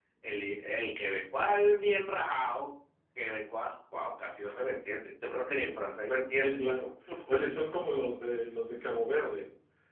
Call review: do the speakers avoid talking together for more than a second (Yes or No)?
Yes